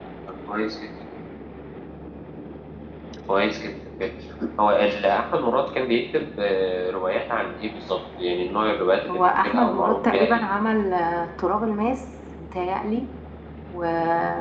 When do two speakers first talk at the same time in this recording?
9 s

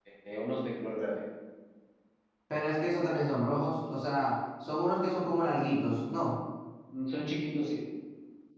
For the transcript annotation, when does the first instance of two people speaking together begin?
none

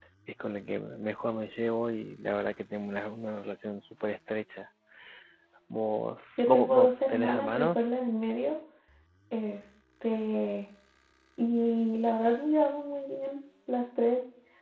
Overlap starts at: 6 s

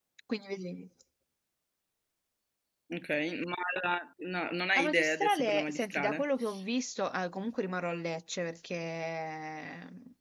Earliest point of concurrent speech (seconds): 5 s

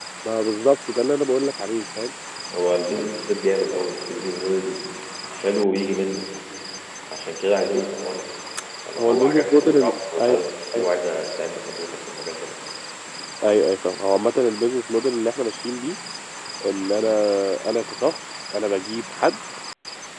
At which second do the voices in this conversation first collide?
9 s

